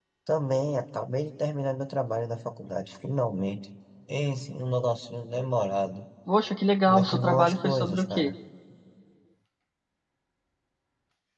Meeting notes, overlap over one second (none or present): present